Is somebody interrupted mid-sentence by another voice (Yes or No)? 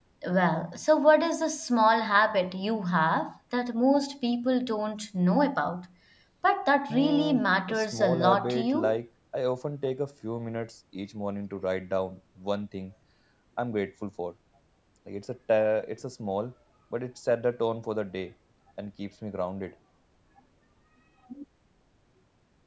Yes